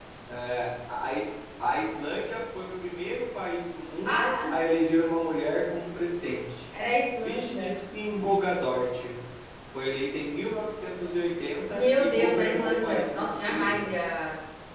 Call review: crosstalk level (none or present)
present